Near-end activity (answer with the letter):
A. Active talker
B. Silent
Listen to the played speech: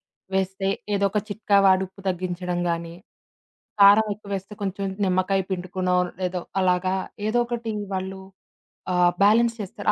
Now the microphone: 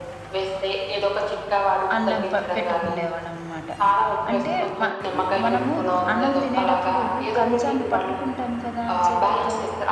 A